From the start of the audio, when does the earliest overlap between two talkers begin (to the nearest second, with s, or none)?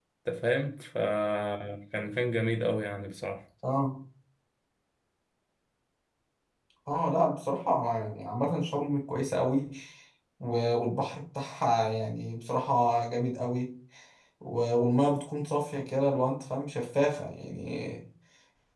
none